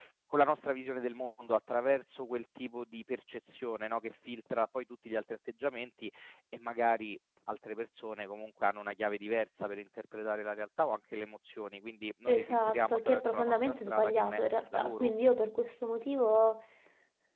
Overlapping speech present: Yes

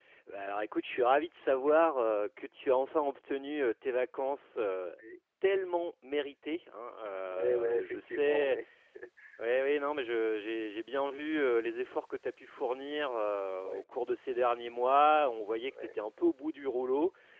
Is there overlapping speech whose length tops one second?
Yes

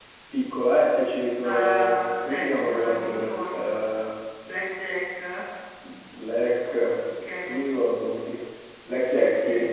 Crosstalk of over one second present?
Yes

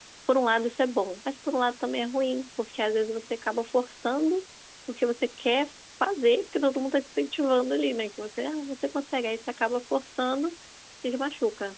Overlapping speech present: No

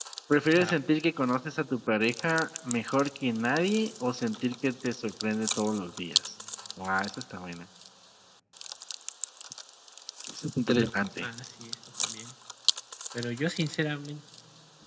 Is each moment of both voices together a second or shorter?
Yes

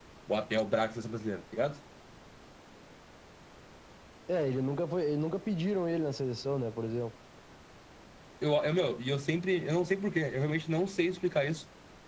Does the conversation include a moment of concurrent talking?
No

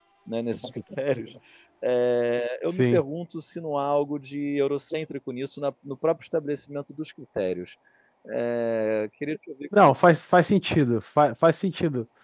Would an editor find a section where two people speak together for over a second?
No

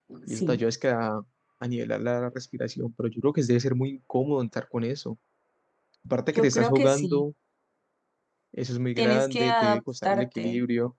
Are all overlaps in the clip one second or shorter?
No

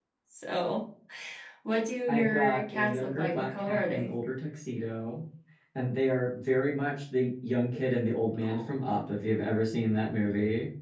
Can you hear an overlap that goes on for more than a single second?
Yes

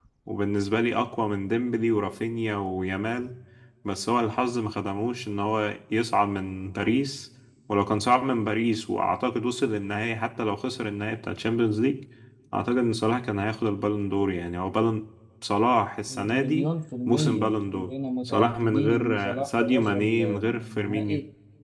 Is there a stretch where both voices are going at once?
Yes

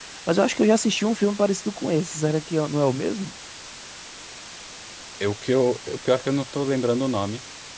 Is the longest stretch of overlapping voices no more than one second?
Yes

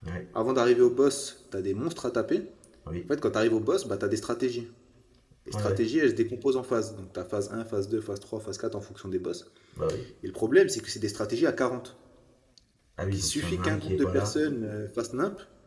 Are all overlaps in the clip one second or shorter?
No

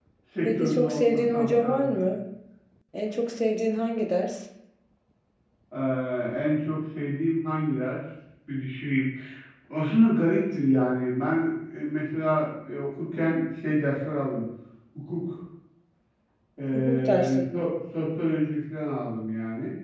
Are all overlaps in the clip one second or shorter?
No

